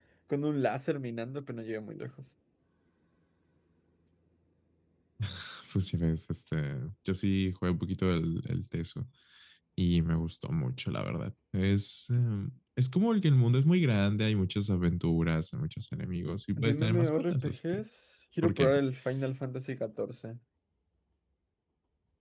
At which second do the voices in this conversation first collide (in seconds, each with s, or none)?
16.6 s